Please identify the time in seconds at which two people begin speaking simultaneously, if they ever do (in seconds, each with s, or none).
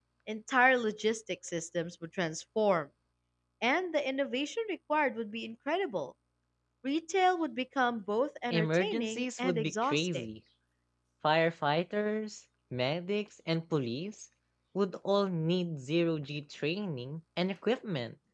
8.5 s